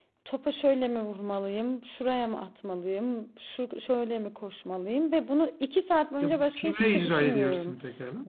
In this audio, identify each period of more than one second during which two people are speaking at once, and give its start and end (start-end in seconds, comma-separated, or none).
6.2-7.7